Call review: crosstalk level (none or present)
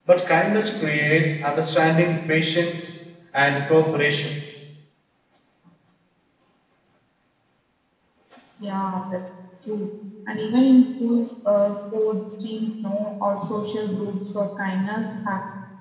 none